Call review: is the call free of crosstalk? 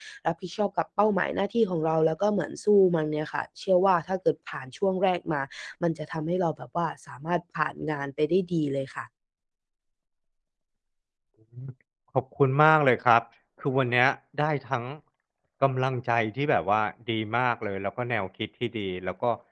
Yes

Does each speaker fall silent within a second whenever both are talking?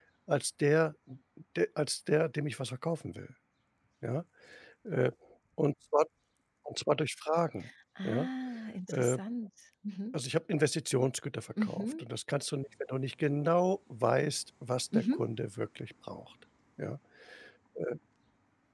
Yes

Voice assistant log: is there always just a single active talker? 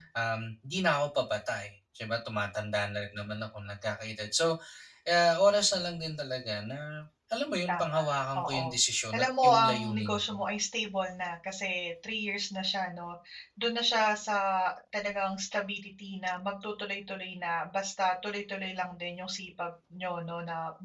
No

